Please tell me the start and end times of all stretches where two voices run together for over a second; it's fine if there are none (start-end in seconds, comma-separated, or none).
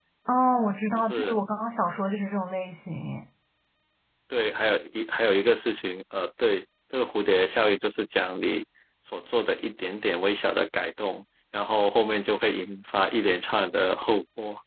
none